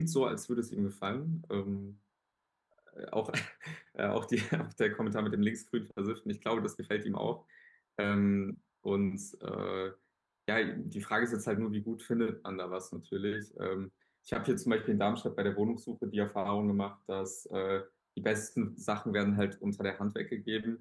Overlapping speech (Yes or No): No